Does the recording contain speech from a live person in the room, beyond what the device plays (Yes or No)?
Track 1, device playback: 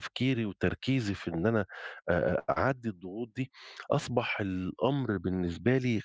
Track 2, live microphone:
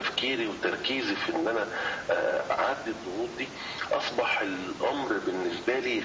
No